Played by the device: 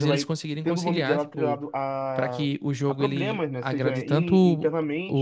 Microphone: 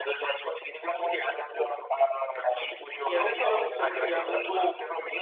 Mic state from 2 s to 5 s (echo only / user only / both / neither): both